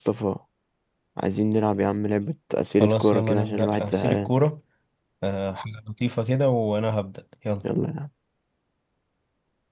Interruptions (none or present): present